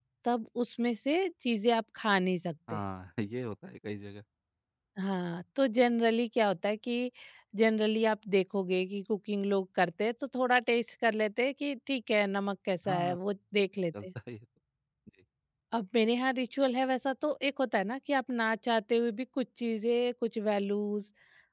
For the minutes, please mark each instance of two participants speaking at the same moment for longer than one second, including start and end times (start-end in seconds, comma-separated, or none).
none